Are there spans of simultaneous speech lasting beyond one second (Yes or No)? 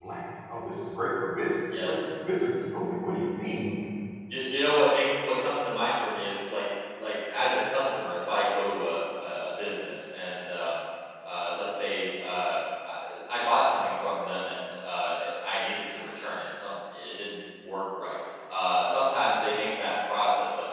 No